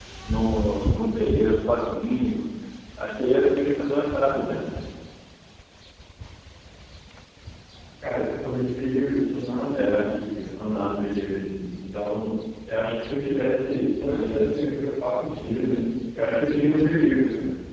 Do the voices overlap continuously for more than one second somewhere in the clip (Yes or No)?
No